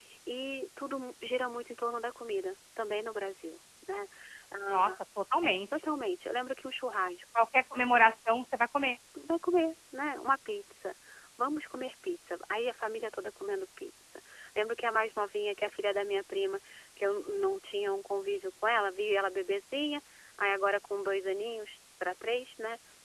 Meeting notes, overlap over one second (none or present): none